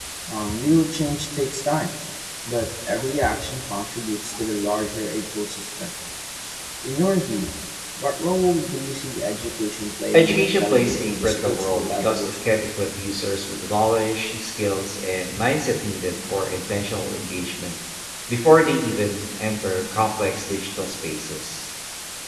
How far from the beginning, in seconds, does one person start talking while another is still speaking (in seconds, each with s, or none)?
10.1 s